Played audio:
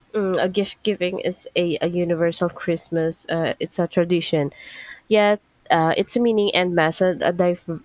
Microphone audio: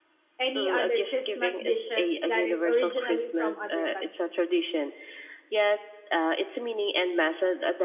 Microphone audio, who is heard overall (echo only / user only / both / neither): both